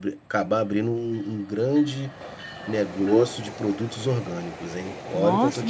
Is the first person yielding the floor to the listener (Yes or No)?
Yes